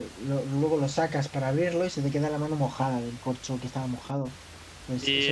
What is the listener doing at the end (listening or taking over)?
taking over